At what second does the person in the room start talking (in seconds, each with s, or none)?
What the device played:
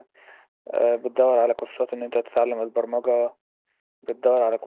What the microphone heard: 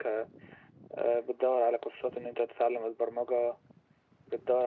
none